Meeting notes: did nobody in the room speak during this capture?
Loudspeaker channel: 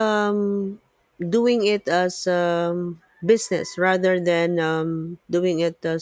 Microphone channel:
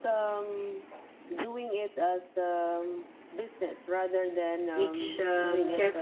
No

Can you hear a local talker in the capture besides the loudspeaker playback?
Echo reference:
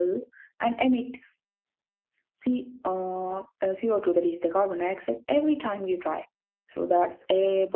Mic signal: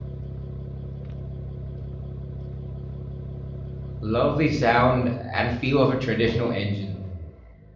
Yes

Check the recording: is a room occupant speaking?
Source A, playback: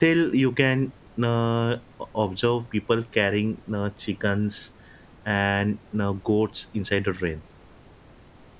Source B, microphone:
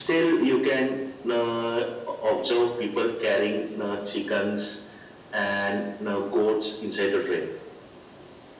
No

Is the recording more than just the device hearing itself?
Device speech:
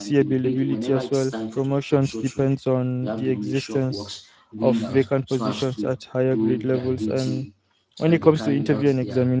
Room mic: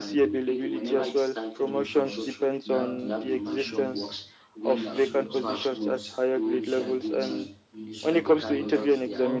Yes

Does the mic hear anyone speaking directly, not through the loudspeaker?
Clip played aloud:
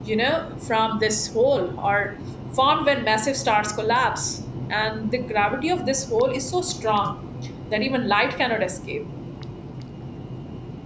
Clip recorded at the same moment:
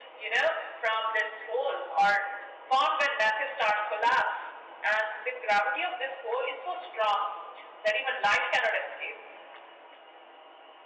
No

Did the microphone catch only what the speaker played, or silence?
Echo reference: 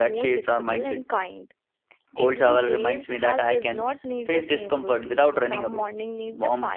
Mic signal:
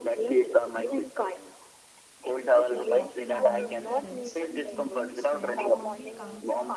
No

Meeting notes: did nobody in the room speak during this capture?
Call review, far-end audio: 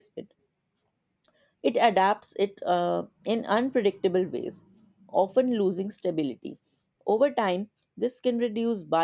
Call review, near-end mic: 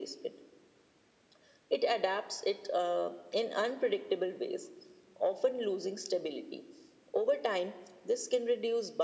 Yes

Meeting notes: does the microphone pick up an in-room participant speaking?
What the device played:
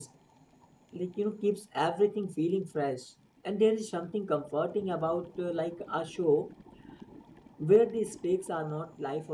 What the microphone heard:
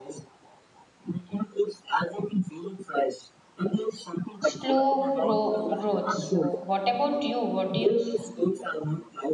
Yes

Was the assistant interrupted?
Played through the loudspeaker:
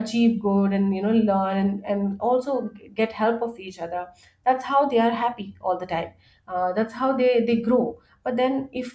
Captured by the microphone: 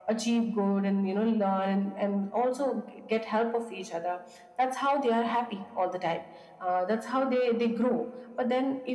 No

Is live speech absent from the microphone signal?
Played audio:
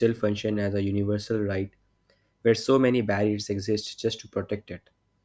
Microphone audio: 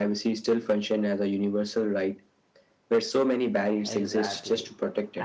No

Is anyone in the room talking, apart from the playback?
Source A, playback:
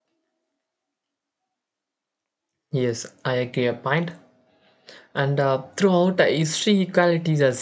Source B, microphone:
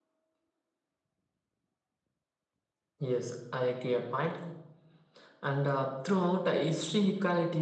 No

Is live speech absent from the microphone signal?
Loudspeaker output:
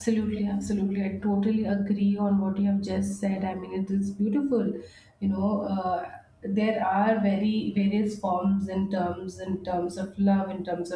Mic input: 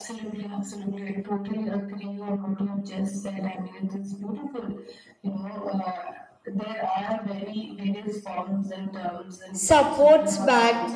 No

